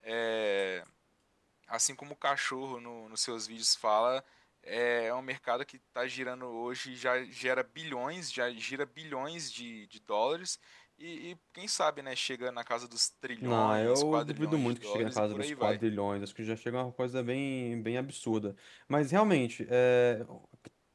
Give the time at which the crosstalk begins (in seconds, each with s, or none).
13.4 s